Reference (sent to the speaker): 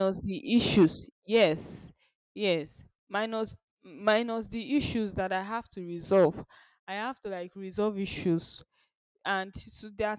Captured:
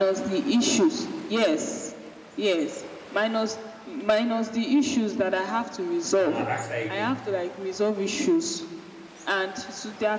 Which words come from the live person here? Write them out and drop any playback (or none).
And I asked her again,